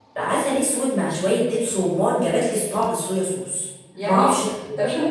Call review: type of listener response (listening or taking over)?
taking over